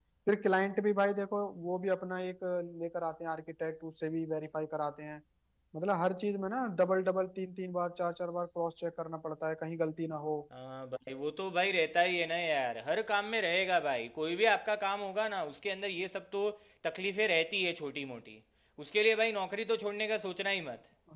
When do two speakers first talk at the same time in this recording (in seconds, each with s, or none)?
none